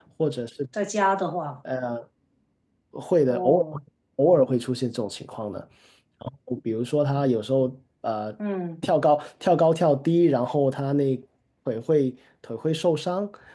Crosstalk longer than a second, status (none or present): none